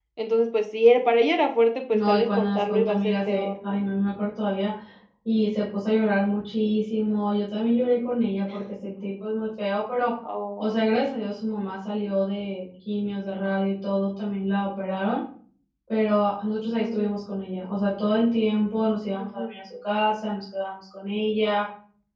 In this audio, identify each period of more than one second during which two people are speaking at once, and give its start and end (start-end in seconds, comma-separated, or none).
1.9-3.8